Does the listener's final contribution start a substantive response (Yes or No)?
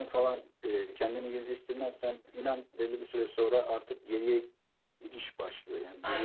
Yes